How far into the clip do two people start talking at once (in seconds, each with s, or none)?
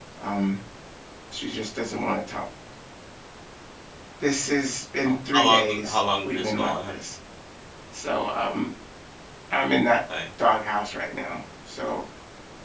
5.0 s